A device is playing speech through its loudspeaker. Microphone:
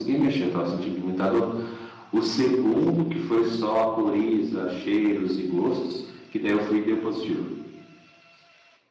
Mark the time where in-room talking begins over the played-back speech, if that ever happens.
none

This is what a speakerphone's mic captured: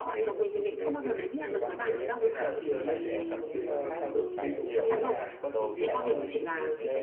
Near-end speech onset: 2 s

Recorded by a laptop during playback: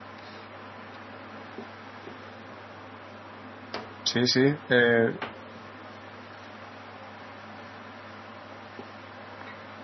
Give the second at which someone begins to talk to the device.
4 s

